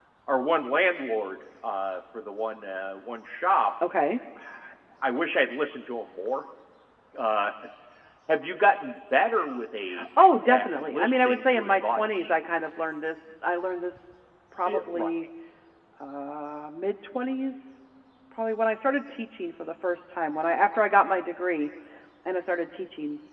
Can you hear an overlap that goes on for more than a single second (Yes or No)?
Yes